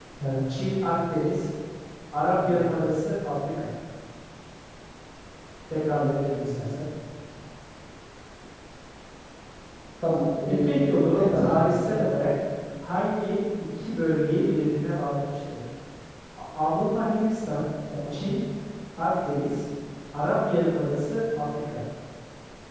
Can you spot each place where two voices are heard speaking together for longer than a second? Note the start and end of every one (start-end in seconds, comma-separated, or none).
10.6-11.9